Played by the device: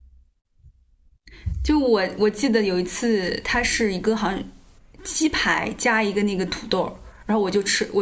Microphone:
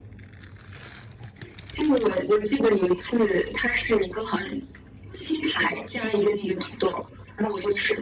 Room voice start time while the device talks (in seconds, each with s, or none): none